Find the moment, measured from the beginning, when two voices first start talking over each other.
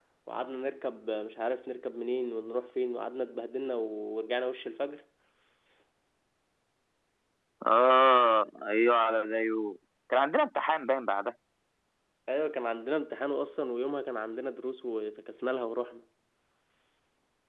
none

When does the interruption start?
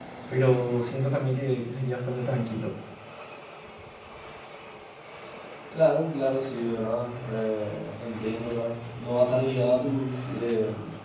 none

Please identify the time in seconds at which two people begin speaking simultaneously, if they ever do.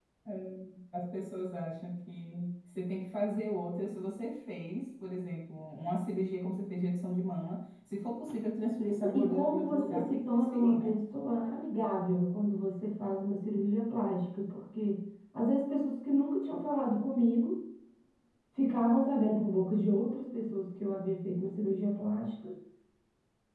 9.0 s

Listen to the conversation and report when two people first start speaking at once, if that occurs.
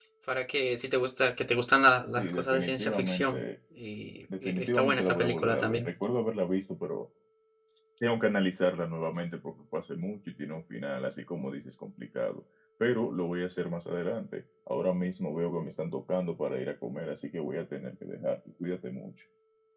2.2 s

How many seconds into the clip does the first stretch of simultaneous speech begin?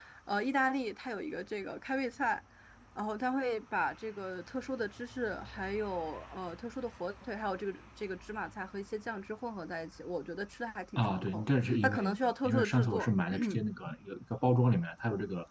11.0 s

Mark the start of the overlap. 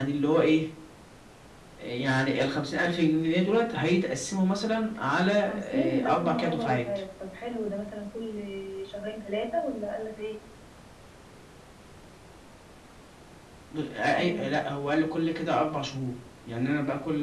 5.4 s

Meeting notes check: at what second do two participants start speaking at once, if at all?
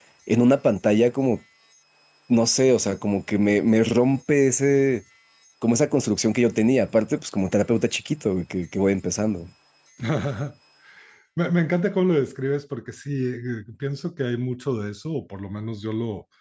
none

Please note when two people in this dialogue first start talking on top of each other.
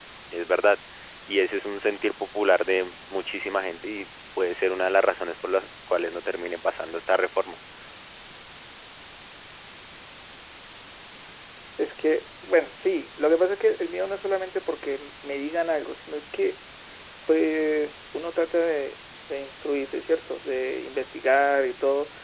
none

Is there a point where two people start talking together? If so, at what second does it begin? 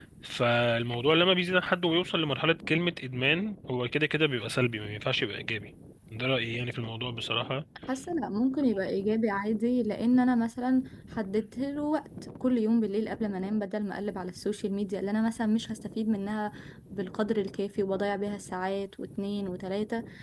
none

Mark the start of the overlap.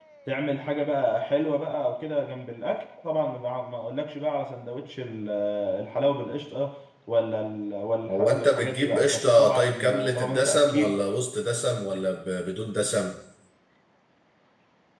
8.1 s

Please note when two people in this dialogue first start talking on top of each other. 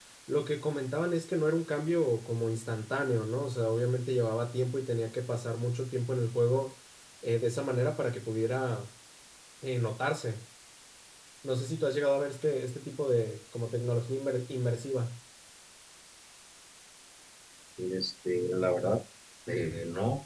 none

